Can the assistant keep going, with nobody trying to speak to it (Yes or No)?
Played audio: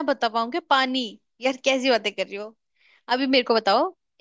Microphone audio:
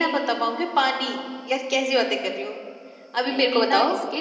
No